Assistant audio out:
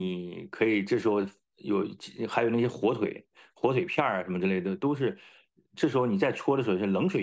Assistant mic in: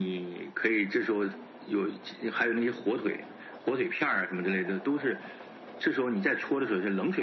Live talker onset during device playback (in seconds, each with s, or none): none